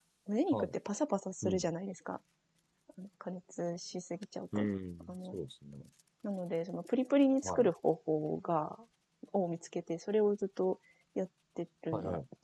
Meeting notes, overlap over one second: none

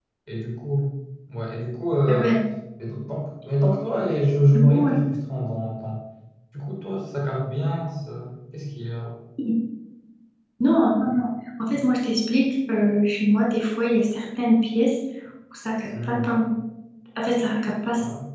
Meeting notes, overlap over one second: none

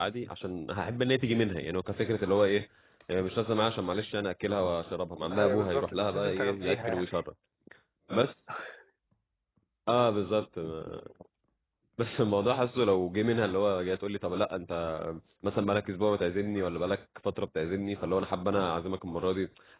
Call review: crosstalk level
present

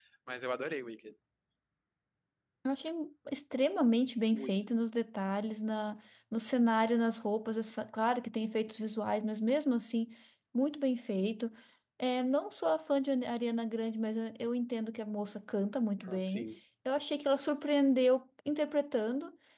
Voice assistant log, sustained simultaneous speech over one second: none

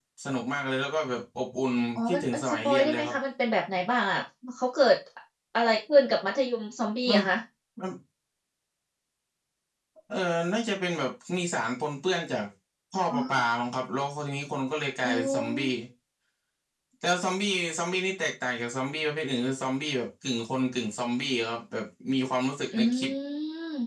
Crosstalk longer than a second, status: present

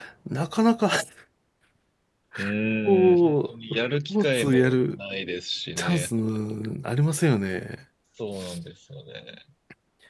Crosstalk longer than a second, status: present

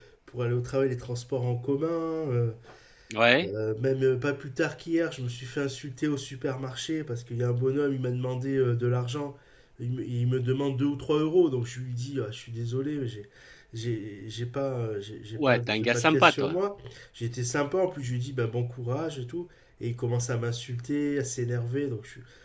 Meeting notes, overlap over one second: present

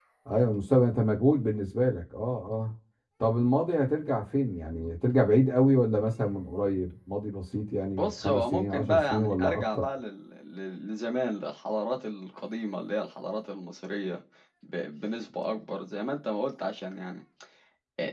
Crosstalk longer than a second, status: present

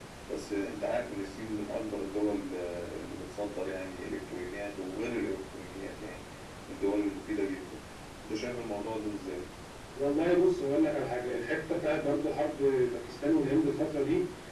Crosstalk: none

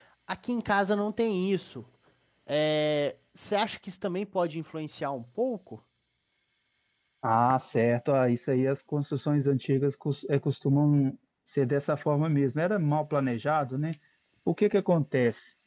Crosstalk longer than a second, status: none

